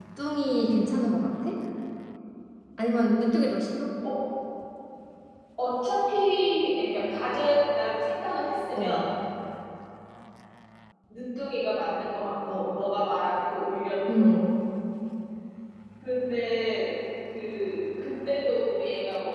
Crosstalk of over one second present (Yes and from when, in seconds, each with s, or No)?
No